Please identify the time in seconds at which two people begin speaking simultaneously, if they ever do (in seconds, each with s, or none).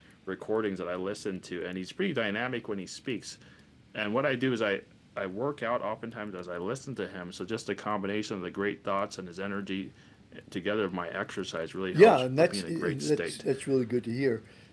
11.9 s